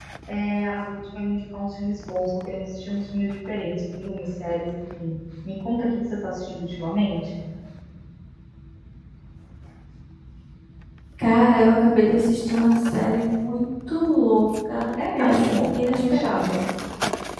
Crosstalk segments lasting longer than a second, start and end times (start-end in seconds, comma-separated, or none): 15.1-16.6